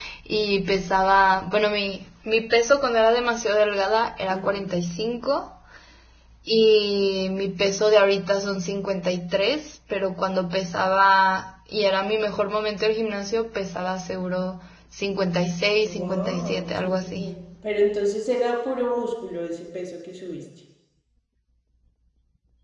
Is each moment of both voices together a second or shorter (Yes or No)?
No